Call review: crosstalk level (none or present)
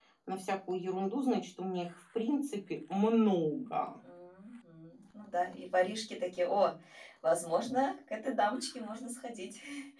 none